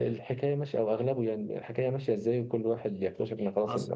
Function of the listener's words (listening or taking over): listening